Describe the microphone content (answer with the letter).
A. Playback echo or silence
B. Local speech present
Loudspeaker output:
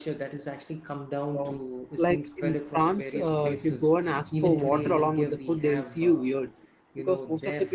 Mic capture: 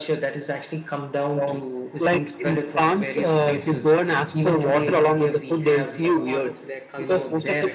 B